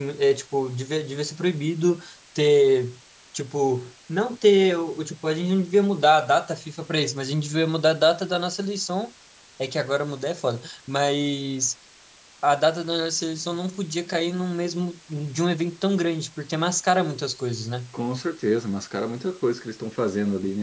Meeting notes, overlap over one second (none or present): none